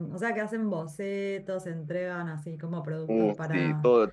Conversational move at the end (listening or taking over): taking over